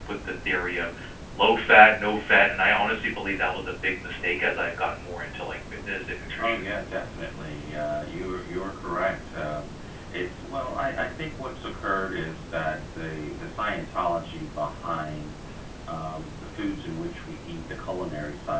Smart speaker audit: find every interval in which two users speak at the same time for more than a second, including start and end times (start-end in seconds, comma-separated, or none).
none